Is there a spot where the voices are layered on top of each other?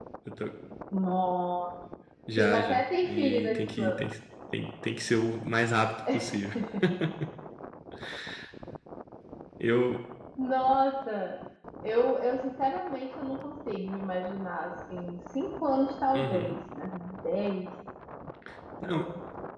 Yes, from 2.4 s

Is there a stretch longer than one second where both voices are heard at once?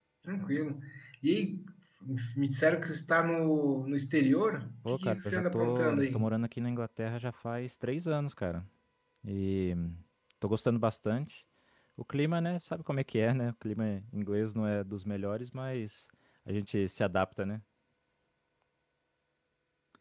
Yes, from 4.8 s

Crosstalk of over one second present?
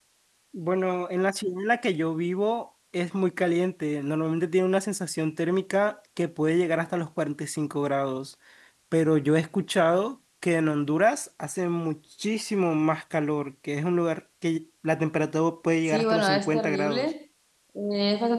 Yes, from 15.9 s

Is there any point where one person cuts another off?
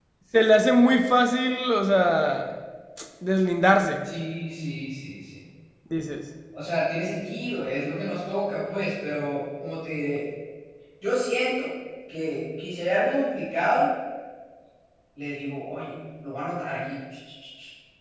No

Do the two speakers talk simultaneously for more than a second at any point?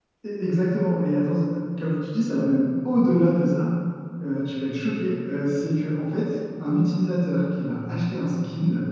No

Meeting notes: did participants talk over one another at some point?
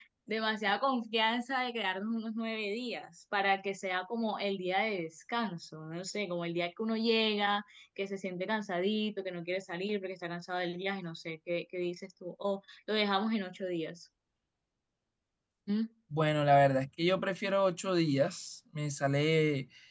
No

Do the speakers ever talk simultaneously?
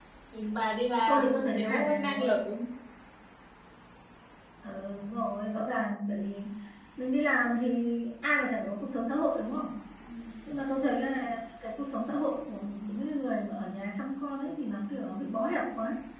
Yes, from 1.1 s

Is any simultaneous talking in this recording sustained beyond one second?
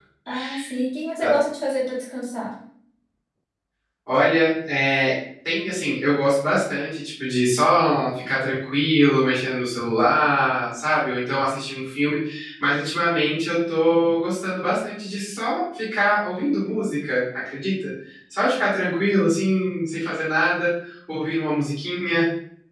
No

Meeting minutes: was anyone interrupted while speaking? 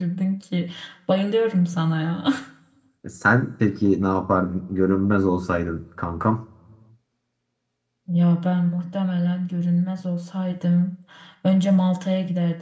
No

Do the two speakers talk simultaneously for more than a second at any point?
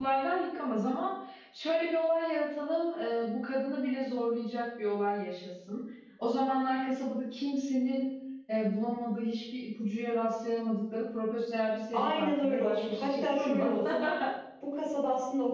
Yes, from 11.9 s

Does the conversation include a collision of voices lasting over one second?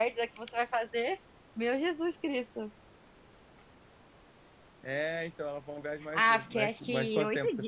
Yes, from 6.1 s

